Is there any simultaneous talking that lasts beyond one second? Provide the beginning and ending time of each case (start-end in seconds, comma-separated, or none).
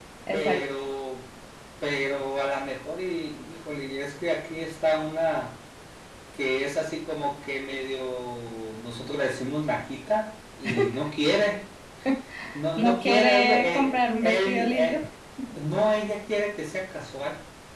12.8-15.0